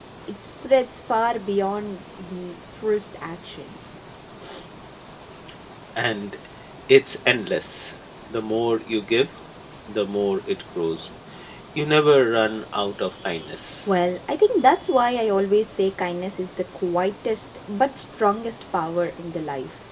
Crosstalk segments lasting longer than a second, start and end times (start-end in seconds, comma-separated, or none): none